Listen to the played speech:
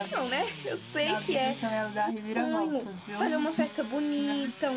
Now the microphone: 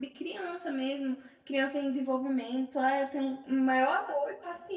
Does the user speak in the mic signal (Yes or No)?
Yes